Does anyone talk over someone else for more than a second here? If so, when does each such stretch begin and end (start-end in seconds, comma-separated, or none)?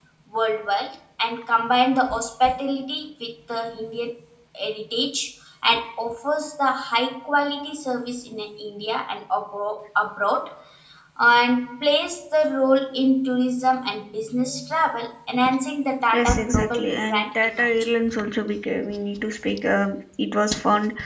16.1-17.7